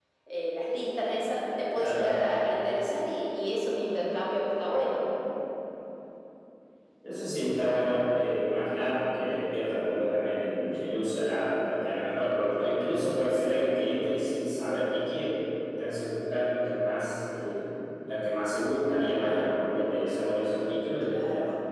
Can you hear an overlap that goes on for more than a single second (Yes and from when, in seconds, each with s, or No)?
No